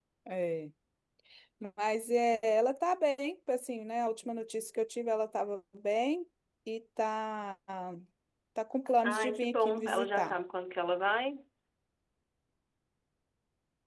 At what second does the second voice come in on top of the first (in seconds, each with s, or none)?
9.0 s